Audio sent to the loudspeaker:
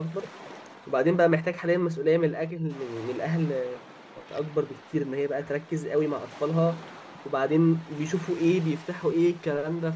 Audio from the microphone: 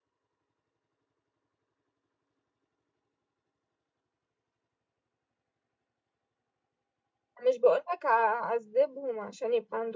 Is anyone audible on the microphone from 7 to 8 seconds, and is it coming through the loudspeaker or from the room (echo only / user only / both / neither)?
user only